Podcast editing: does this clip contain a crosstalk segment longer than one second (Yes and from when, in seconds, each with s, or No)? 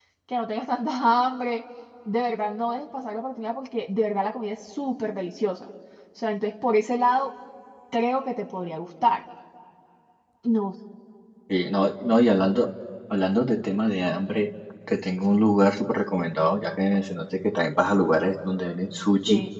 No